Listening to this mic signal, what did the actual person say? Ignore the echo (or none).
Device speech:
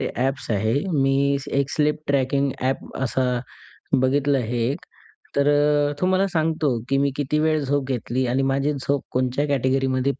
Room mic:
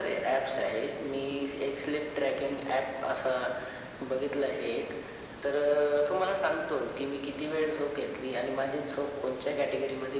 none